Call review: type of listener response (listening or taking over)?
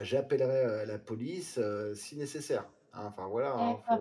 taking over